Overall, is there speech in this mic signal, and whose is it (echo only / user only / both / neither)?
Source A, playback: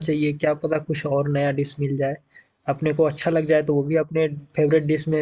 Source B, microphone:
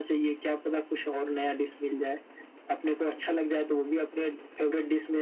echo only